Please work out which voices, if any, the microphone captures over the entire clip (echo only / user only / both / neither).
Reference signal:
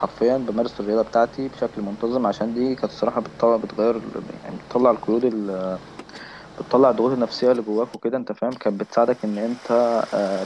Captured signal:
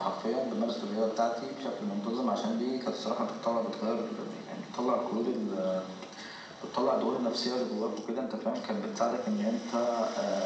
echo only